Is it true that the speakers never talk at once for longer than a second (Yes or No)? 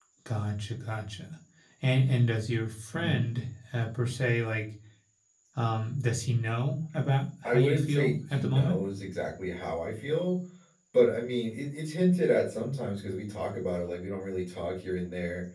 No